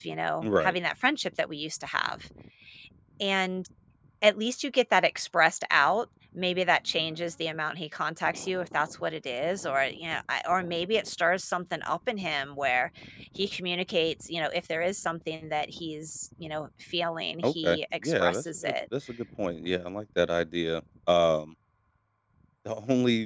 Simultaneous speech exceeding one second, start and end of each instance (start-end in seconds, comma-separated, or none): 17.4-18.7